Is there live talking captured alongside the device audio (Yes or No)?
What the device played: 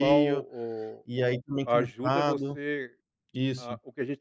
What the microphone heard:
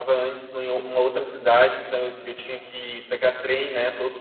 Yes